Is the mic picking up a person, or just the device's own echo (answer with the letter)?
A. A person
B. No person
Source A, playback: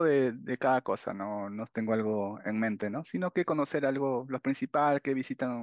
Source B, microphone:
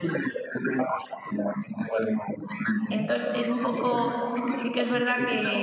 A